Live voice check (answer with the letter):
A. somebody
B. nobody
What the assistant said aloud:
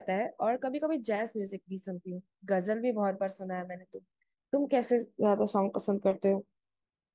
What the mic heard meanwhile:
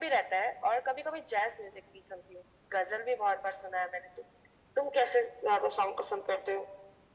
B